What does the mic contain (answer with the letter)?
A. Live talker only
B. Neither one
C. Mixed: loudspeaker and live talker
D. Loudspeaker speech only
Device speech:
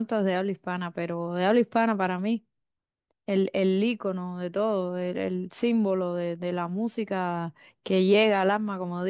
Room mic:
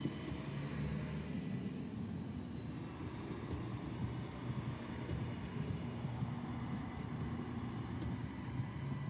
B